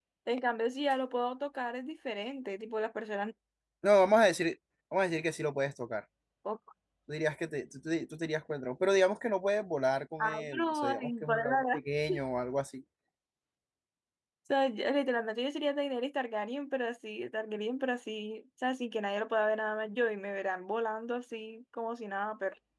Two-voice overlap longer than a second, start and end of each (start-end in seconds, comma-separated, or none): 10.2-11.8